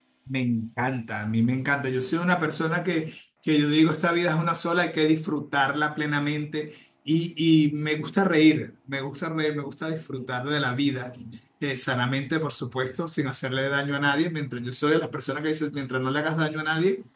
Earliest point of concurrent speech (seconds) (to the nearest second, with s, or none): none